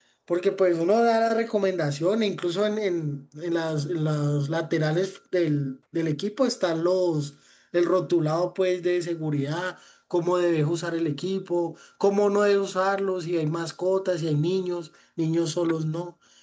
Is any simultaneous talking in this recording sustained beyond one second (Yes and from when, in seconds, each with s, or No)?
No